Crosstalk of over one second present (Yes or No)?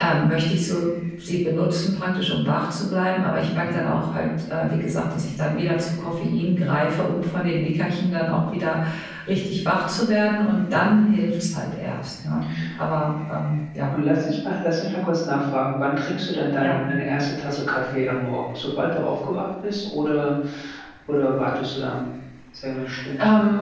No